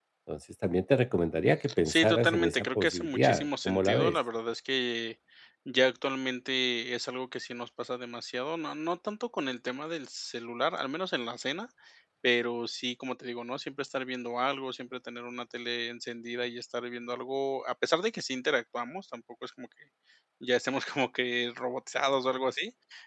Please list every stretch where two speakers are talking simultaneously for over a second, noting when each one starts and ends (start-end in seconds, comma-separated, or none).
1.9-4.2